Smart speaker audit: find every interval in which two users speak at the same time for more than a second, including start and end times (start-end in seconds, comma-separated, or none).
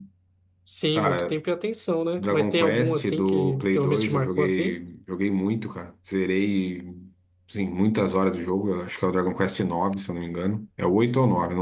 2.2-4.8